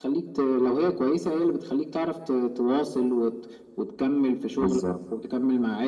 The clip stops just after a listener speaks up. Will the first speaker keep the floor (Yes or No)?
Yes